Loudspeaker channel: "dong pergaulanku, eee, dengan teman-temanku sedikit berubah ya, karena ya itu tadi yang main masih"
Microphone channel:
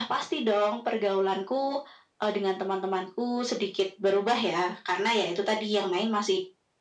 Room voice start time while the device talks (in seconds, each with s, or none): none